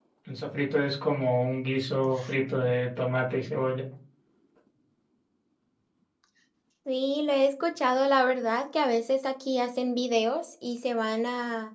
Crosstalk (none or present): none